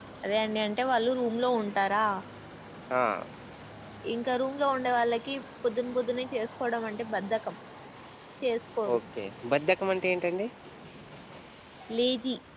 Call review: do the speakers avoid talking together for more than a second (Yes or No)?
Yes